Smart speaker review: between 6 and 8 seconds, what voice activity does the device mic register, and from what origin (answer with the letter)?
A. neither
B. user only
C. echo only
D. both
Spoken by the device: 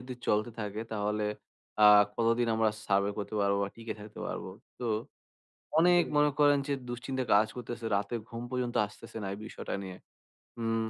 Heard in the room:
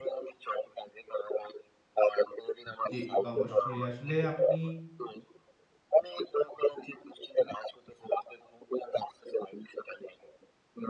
C